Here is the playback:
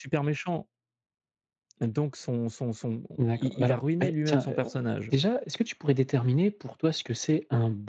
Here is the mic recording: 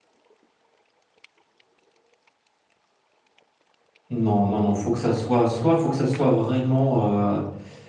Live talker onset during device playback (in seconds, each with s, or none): 4.1 s